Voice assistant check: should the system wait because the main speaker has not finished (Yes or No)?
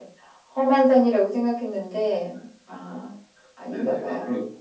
No